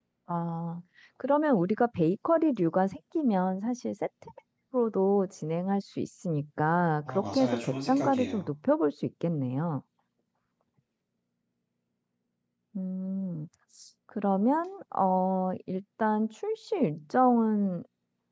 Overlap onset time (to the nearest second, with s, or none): 7 s